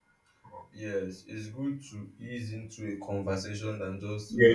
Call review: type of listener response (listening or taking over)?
taking over